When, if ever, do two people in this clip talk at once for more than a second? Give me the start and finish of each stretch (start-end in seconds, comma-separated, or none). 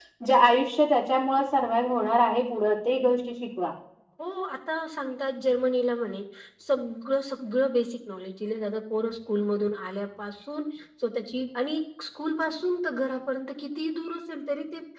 none